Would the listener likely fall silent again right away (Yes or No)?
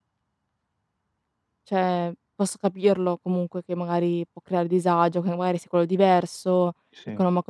Yes